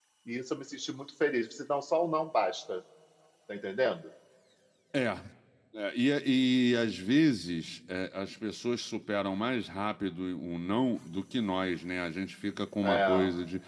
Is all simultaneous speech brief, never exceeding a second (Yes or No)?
Yes